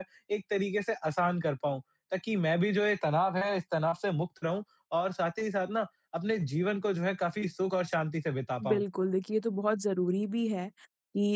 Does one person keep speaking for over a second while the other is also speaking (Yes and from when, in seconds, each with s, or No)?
No